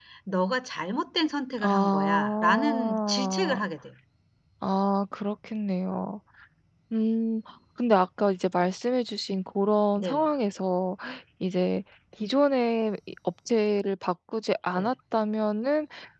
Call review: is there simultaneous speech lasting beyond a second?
Yes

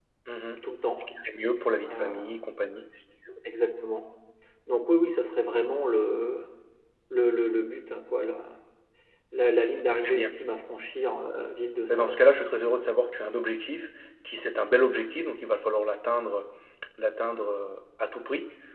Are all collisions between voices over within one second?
Yes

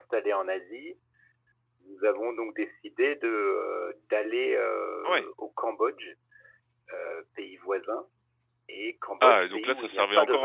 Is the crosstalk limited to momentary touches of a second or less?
No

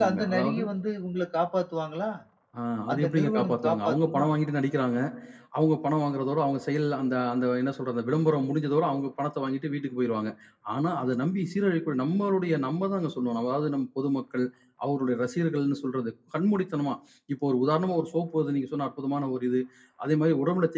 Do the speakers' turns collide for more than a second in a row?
Yes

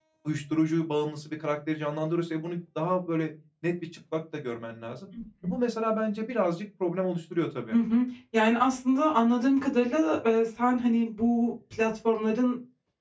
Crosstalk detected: No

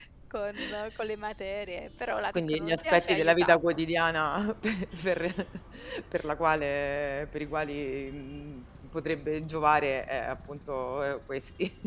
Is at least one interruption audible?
Yes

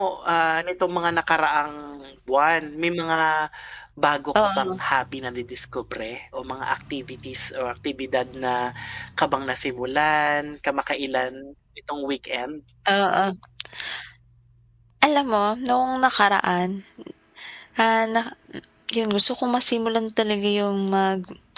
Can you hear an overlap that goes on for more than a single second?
No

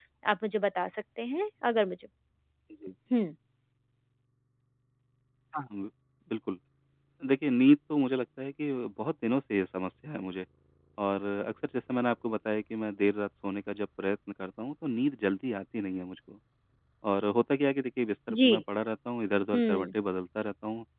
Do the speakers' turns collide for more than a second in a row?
No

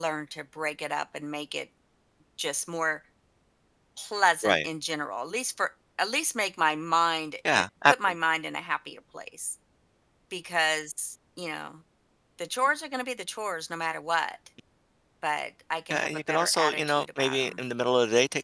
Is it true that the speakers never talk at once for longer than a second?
No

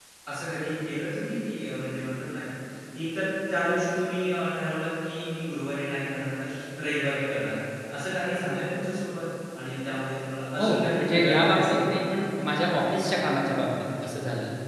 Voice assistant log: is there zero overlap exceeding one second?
No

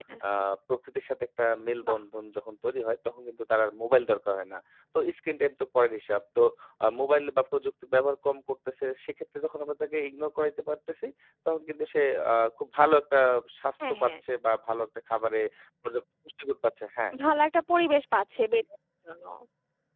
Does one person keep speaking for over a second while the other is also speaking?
No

